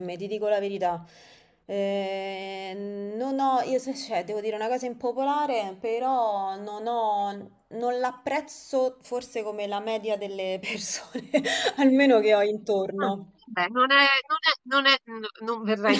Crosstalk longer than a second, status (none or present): none